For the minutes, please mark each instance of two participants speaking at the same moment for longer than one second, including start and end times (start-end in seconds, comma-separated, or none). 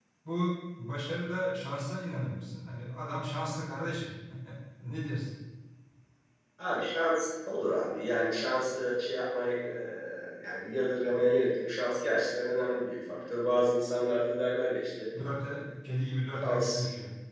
none